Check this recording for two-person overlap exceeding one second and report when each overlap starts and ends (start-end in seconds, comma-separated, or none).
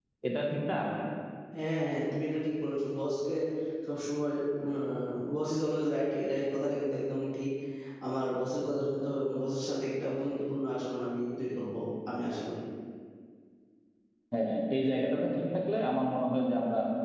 none